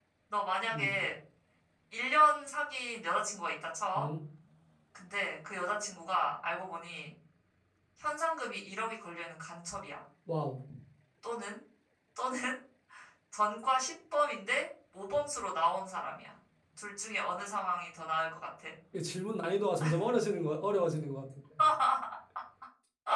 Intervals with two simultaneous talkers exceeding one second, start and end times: none

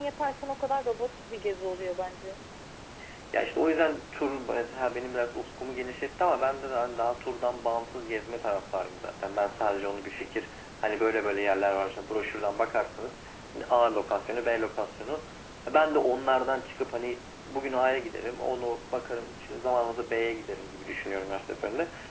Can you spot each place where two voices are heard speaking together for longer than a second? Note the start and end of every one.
none

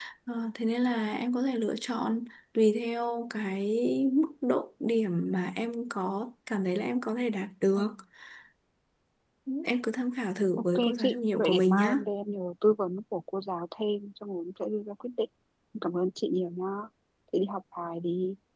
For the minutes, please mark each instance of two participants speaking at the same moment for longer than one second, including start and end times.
10.8-12.0

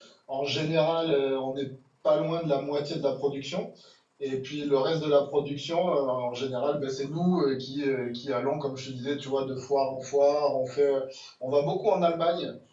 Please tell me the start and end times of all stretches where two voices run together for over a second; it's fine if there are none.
none

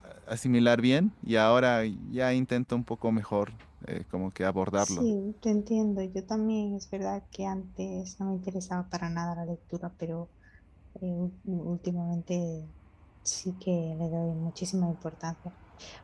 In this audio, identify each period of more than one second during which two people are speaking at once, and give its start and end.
none

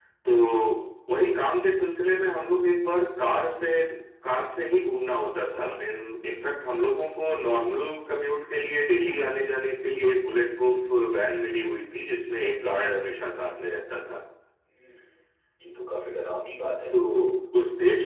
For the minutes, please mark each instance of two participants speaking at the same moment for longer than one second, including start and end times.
none

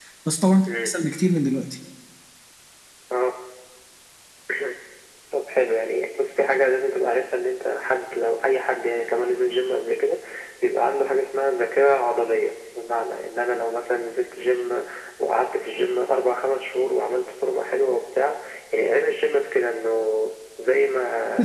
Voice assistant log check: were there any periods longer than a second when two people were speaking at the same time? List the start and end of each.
none

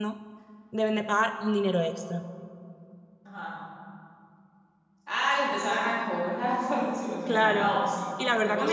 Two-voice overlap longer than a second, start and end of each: none

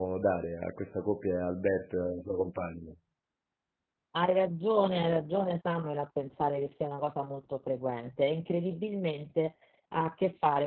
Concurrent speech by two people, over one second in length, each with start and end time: none

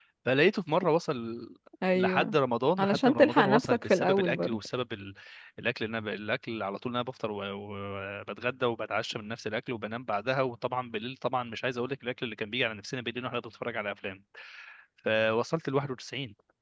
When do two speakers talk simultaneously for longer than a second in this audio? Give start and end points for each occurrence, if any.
2.8-4.6

